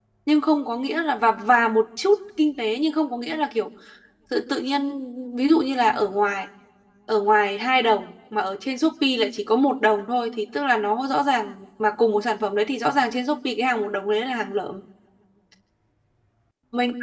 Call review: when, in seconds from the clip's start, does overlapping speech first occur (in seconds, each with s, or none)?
none